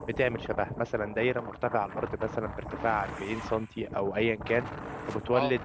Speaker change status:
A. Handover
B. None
B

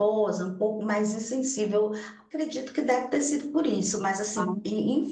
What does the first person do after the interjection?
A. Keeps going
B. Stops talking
A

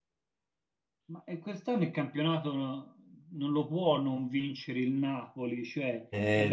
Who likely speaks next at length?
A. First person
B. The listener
A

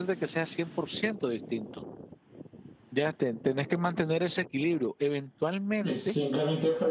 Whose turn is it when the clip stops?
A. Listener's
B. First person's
A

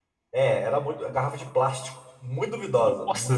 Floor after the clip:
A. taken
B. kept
A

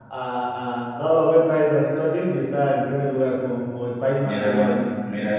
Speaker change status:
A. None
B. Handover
B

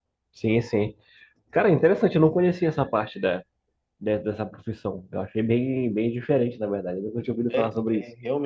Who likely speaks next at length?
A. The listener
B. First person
A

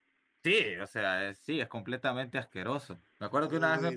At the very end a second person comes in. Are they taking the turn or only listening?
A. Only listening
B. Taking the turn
A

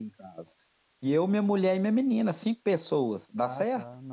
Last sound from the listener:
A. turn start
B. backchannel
A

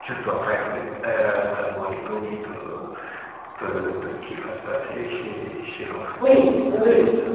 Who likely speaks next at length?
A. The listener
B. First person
A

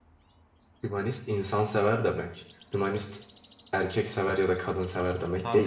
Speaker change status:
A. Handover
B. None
A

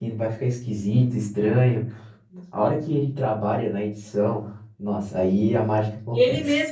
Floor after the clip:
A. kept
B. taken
B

